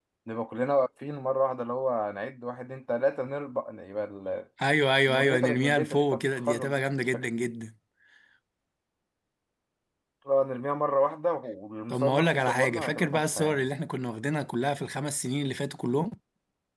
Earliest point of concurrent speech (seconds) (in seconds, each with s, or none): 5.0 s